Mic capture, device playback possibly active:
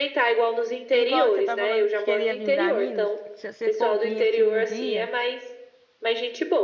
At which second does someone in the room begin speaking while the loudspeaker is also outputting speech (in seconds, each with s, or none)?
0.9 s